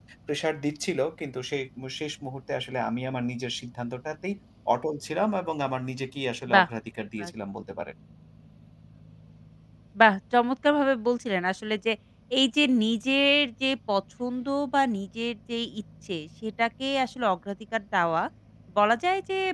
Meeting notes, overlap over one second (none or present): none